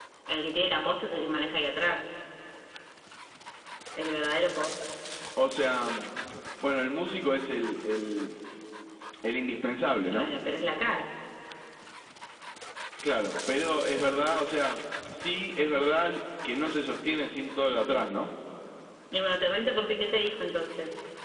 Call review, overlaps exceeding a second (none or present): none